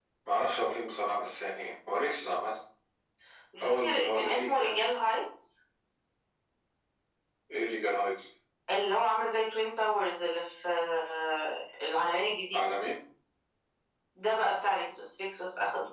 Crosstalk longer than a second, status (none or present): present